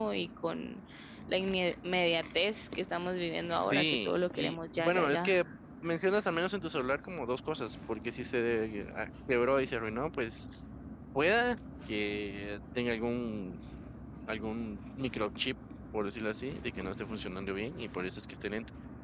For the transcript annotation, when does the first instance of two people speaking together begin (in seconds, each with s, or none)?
3.7 s